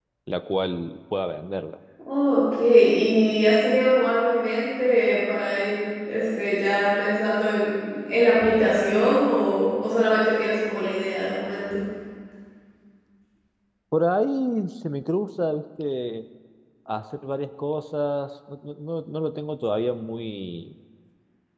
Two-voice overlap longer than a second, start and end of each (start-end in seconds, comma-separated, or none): none